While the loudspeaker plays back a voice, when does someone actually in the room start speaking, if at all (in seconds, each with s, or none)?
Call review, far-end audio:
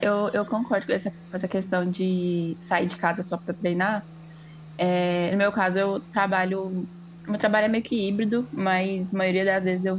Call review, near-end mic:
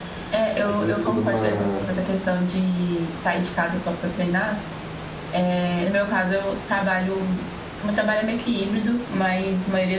0.6 s